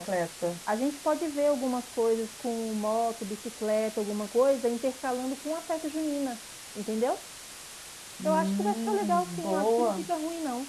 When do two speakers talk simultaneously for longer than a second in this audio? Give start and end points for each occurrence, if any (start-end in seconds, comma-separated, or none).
8.2-10.1